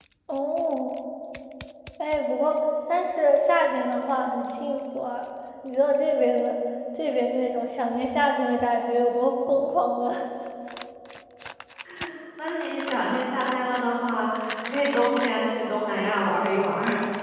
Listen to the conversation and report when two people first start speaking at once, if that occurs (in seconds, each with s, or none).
none